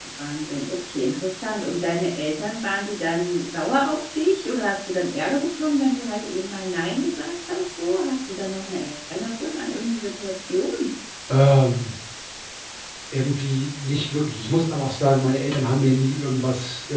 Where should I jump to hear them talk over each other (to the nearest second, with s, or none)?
none